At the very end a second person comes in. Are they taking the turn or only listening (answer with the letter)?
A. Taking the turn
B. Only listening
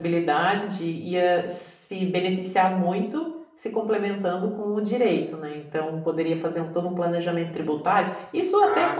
B